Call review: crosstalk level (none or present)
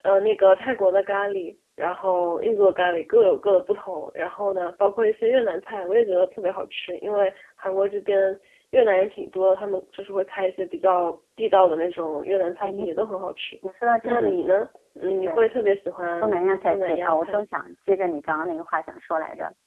present